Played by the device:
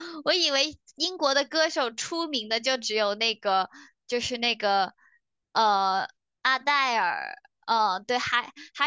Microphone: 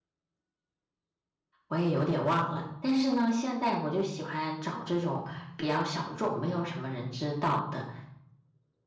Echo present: No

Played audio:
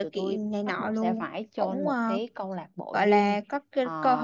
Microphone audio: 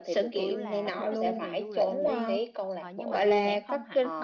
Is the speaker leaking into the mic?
Yes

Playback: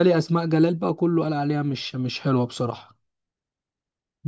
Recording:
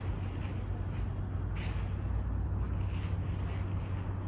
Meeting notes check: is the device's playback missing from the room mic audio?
Yes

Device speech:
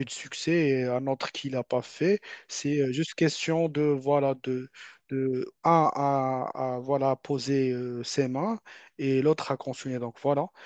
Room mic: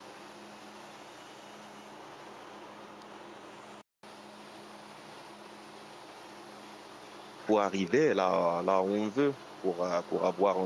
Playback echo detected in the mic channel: No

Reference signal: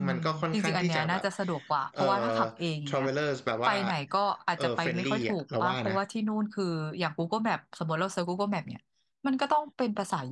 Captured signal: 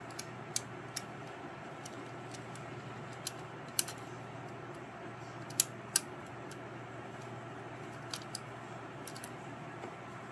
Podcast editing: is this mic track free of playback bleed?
Yes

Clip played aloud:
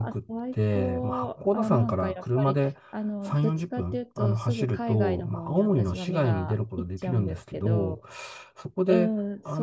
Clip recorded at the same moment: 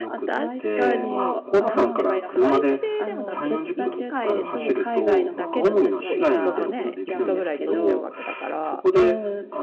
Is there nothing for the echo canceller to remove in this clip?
No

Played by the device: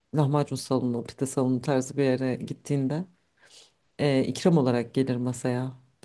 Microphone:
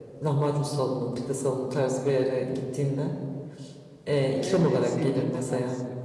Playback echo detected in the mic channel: Yes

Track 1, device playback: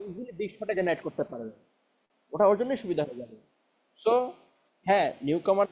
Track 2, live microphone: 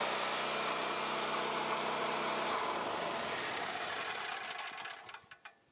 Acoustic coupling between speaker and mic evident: No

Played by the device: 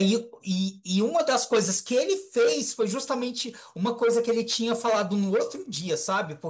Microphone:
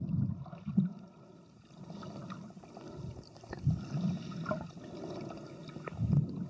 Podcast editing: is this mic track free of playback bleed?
Yes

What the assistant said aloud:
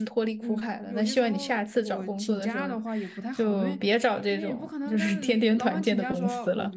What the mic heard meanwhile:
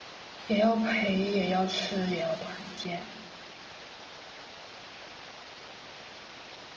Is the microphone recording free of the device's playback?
Yes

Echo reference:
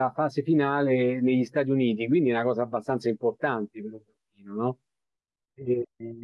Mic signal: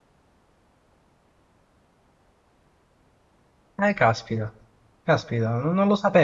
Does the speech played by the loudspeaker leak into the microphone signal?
No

